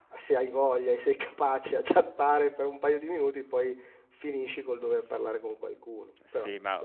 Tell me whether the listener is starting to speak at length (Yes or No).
Yes